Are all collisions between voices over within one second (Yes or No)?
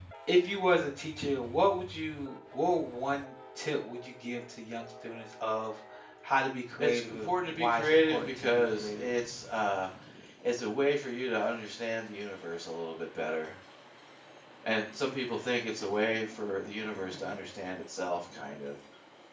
No